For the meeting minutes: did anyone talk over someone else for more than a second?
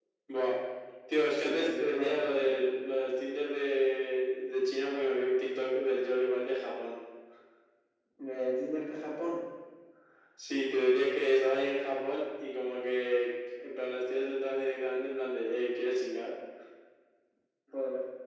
Yes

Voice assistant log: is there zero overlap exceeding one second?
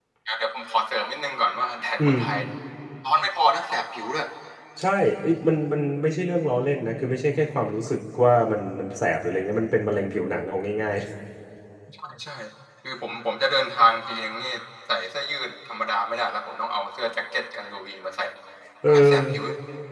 Yes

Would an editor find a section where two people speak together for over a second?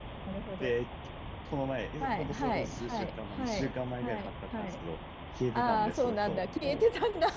Yes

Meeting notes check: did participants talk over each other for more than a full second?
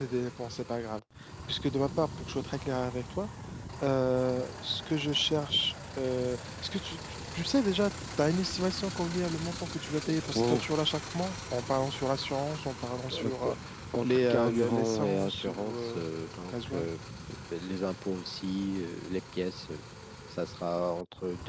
Yes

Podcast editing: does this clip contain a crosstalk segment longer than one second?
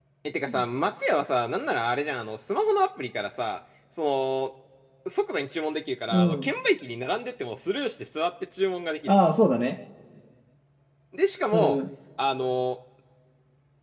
No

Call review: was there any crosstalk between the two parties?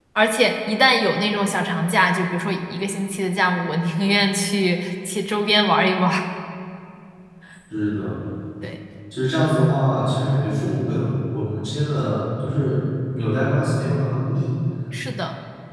No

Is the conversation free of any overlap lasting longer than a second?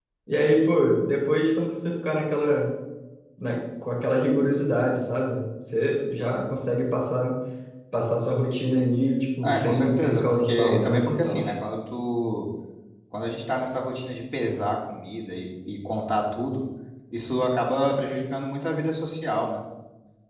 No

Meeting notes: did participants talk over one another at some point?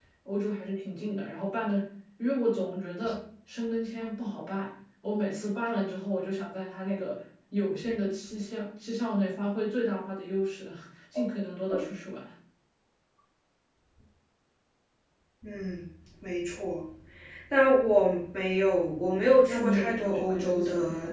Yes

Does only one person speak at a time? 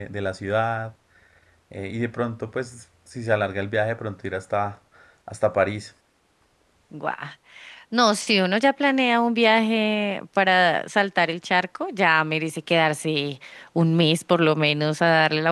Yes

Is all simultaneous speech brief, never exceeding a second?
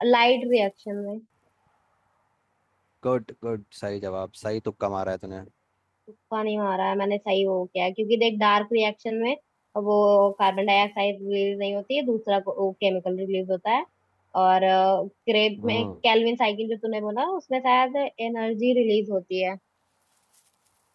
Yes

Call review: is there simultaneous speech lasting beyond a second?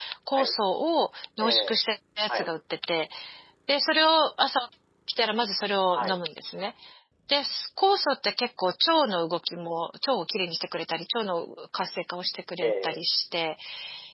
No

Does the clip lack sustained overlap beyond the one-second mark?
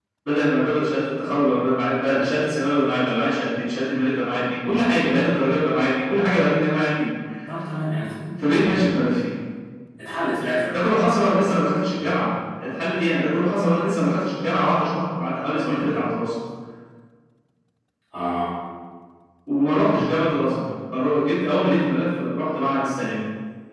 Yes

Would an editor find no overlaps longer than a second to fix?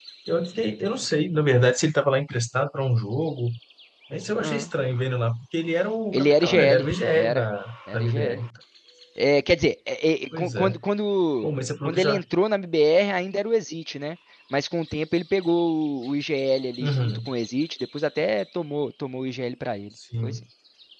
No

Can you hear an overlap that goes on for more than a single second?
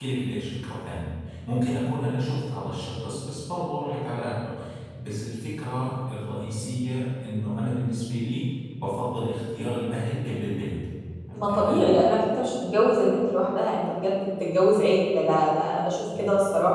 No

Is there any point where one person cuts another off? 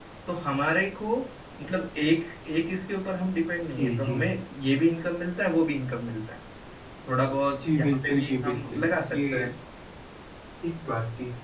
Yes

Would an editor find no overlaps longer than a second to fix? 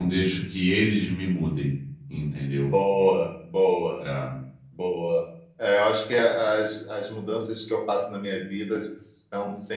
Yes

